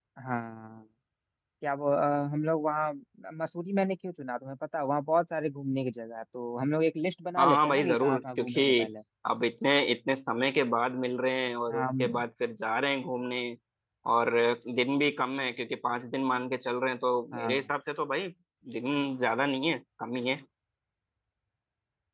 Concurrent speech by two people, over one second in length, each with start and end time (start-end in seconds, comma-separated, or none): 7.4-8.6